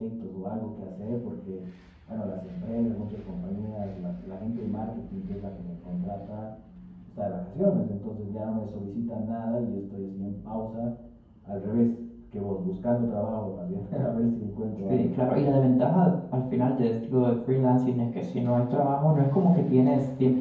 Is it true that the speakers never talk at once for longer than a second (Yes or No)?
Yes